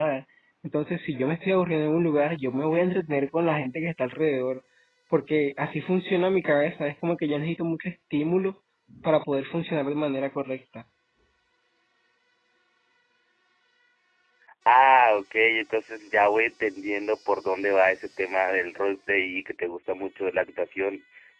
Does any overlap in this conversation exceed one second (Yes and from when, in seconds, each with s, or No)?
No